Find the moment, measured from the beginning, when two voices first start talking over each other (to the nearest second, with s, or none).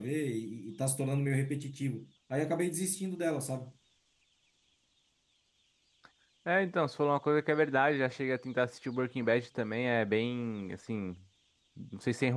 none